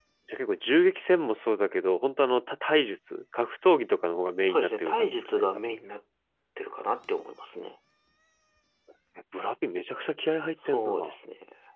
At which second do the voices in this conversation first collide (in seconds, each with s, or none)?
4.5 s